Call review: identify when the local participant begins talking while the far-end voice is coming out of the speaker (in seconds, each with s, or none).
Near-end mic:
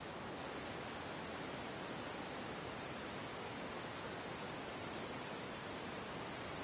none